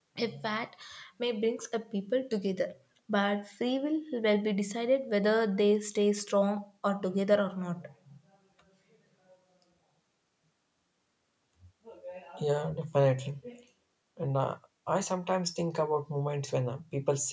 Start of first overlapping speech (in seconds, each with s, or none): none